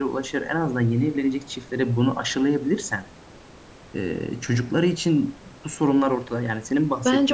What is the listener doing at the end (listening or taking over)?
taking over